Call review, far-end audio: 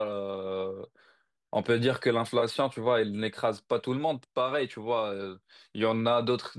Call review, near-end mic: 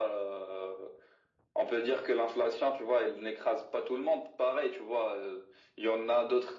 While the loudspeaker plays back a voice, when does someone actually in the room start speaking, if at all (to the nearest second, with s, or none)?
none